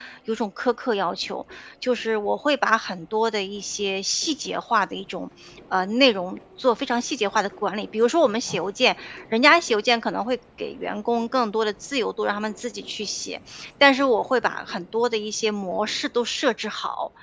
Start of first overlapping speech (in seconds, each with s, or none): none